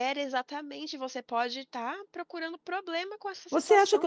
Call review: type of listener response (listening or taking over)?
taking over